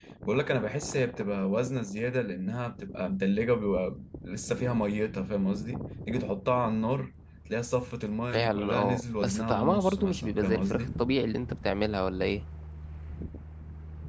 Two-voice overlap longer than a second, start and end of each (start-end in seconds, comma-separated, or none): 8.3-10.9